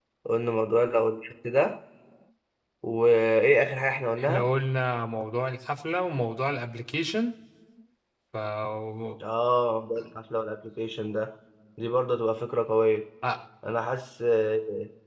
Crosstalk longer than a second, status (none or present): none